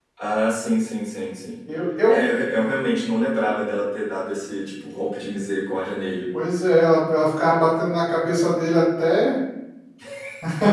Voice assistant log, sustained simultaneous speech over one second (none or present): none